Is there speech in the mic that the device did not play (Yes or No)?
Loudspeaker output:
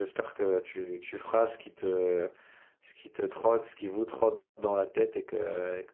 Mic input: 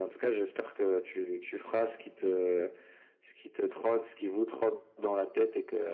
No